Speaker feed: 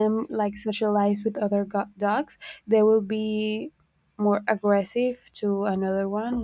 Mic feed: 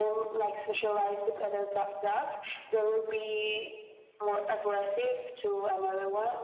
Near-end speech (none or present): none